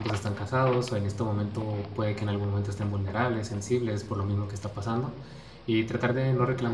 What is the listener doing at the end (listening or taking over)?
listening